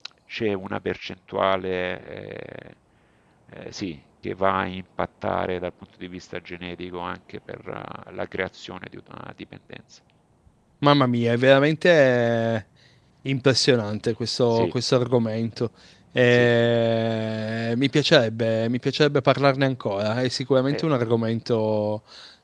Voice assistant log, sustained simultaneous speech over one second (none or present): none